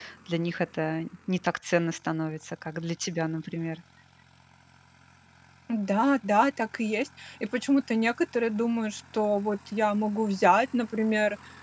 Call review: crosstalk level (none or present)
none